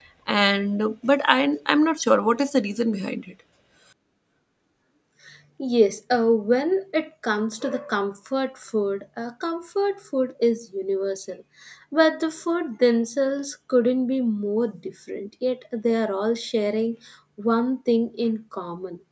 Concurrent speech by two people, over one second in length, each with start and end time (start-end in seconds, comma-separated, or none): none